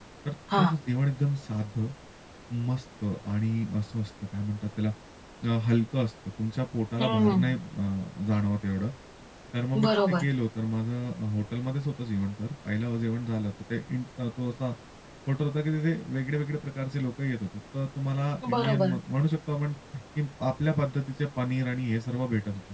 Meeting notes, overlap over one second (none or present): none